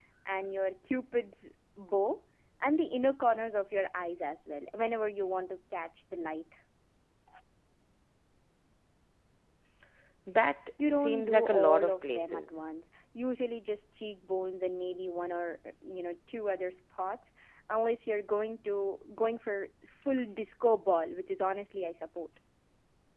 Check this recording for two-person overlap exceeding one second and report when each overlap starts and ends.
10.9-12.6

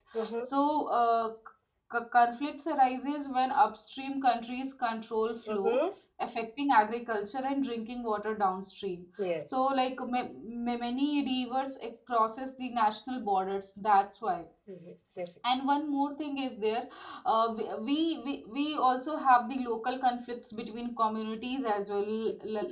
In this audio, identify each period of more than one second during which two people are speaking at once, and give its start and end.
none

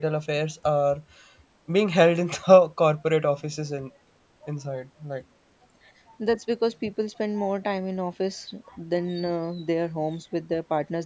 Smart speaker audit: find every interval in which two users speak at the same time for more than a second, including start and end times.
none

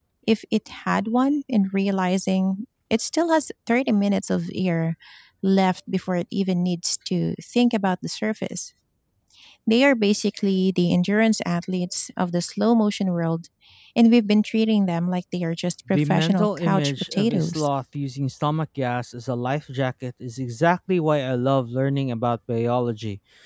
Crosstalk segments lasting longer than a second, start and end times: 15.9-17.7

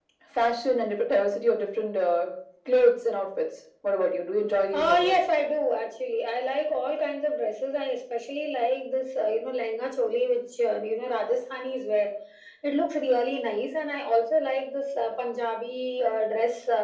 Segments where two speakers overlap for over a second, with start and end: none

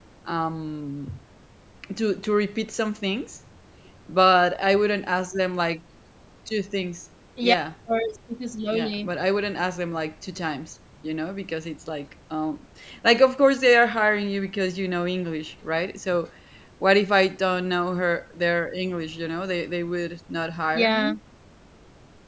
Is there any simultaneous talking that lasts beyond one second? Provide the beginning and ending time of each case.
none

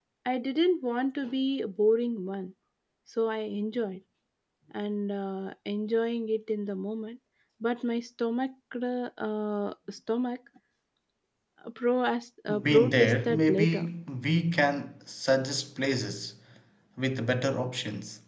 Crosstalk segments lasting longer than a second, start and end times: 12.6-13.9

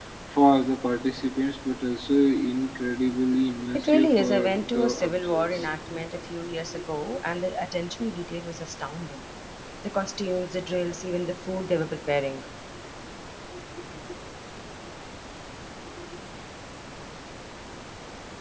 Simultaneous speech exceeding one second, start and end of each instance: 3.7-5.6

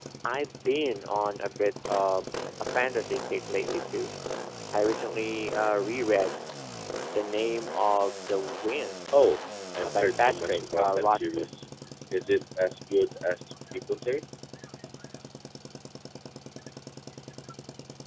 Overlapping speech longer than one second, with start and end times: 9.7-11.5

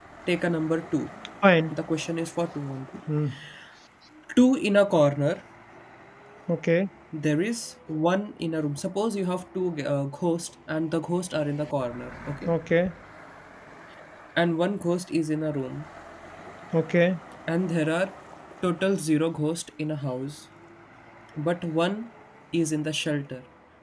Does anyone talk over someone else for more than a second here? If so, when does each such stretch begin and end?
none

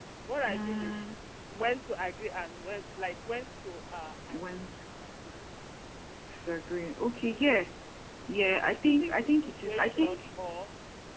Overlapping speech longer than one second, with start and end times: 8.8-10.2

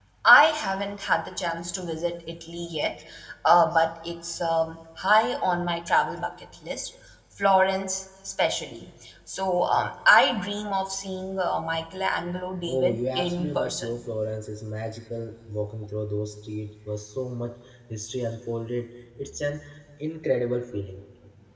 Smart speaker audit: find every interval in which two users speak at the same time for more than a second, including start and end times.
12.6-14.0

